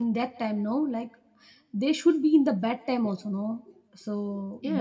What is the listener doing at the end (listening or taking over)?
taking over